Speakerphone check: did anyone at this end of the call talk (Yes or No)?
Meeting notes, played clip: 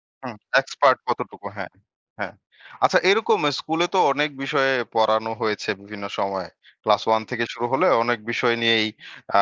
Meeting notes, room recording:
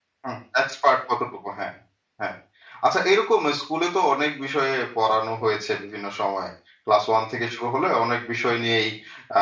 No